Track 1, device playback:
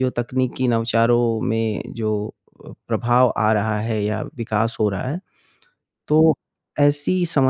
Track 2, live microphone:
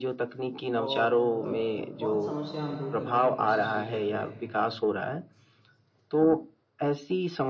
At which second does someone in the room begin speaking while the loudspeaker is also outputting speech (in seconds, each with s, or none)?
0.7 s